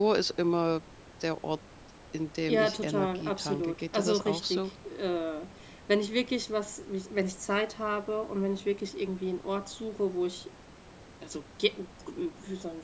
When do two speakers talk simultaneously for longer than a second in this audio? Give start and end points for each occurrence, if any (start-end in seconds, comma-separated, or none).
2.5-4.7